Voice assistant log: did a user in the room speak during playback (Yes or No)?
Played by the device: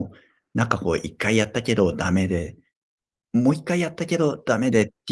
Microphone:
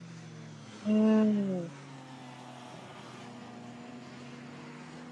Yes